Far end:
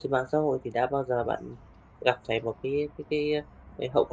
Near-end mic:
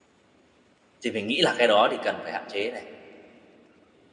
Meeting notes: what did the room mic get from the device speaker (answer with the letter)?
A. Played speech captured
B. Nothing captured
B